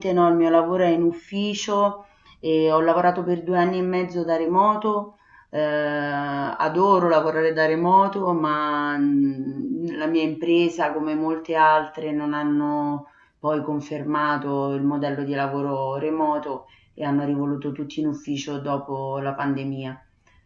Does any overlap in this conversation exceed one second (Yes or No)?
No